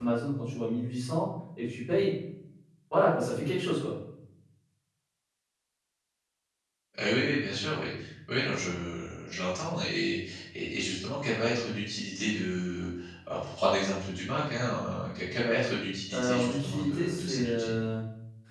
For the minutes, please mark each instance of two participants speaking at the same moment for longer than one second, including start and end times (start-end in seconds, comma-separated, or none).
16.1-17.5